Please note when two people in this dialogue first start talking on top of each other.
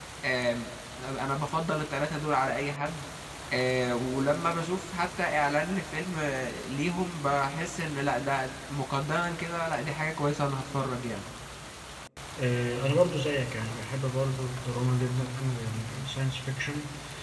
none

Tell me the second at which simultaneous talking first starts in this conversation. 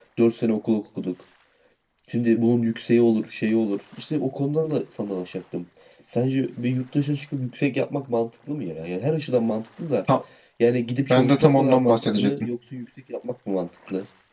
11.1 s

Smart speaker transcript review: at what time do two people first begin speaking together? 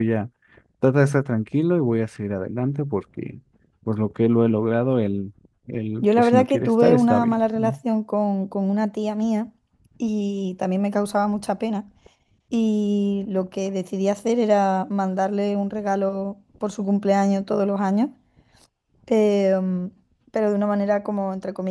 6.0 s

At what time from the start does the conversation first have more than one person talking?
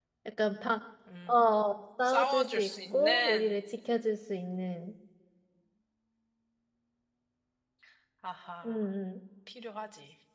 2.0 s

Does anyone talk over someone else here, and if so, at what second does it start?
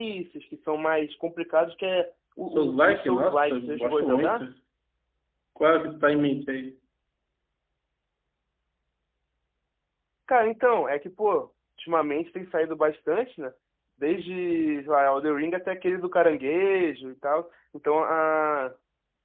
2.5 s

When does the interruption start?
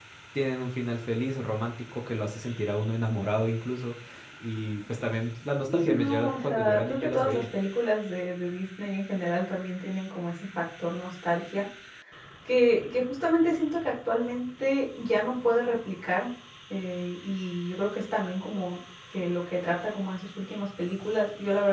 5.7 s

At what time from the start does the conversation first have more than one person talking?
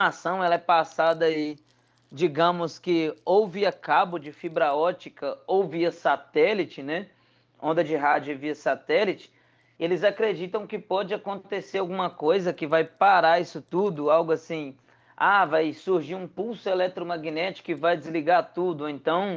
none

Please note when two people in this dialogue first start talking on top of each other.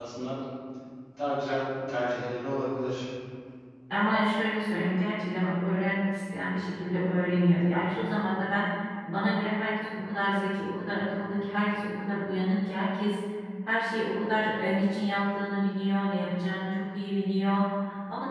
none

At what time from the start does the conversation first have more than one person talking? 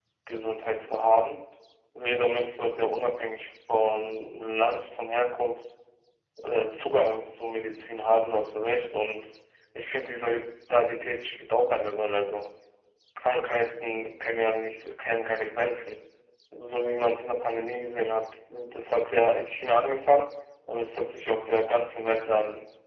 none

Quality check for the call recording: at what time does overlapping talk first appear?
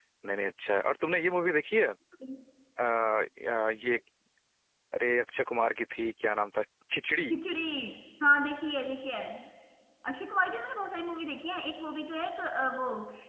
none

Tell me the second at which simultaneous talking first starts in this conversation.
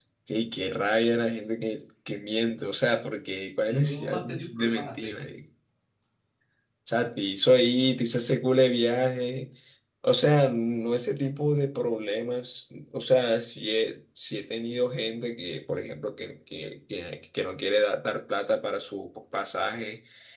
3.7 s

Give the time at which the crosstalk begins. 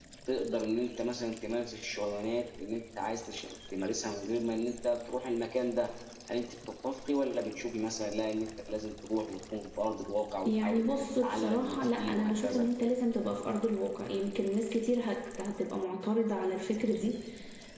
10.4 s

